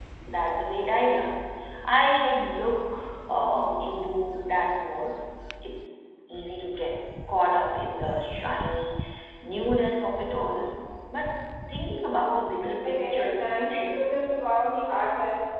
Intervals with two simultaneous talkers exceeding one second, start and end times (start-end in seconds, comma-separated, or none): 12.8-14.0